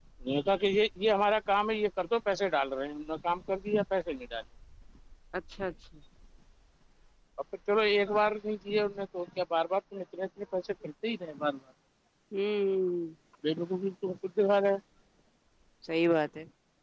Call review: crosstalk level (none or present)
none